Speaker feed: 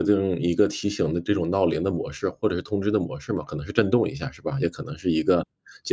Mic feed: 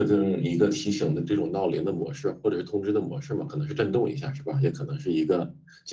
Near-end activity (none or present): none